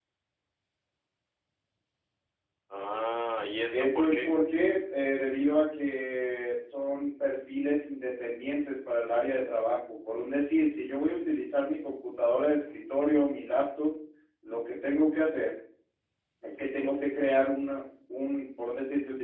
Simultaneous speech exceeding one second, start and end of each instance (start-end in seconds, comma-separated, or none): none